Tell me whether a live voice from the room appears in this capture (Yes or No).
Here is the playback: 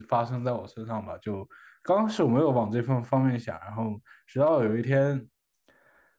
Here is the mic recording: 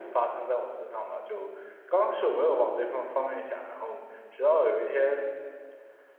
No